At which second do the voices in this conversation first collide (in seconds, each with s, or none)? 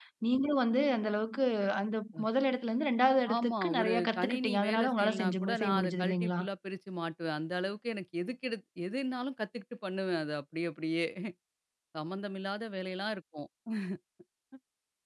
3.3 s